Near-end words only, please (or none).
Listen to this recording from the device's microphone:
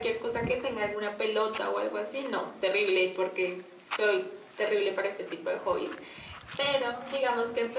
none